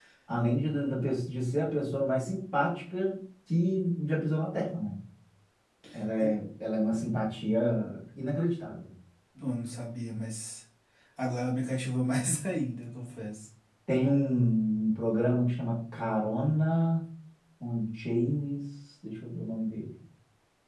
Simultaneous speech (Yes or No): No